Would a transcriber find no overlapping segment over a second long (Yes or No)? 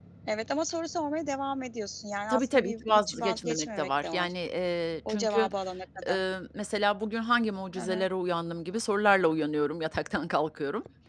No